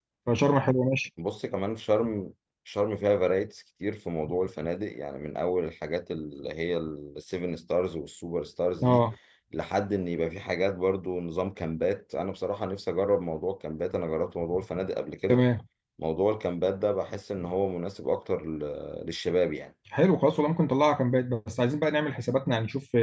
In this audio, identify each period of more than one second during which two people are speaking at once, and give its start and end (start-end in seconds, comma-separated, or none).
none